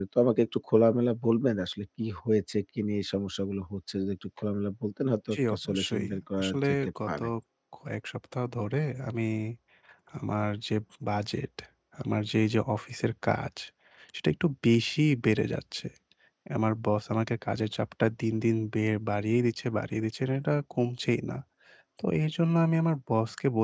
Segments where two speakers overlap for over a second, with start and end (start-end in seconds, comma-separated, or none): 5.3-7.2